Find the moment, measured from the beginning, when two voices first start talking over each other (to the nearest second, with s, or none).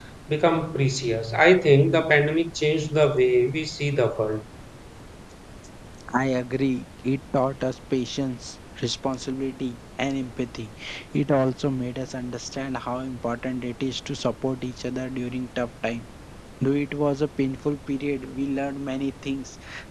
none